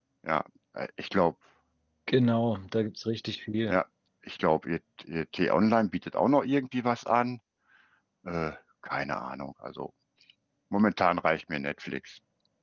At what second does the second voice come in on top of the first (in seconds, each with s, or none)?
none